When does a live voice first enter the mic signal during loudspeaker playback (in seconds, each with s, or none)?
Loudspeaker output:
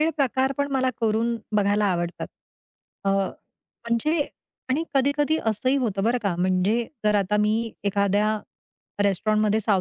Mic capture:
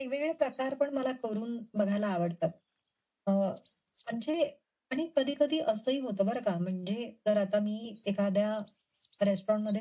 none